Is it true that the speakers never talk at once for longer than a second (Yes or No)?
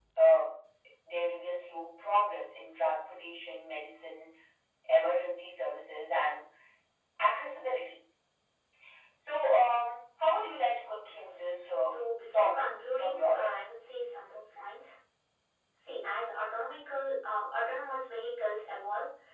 No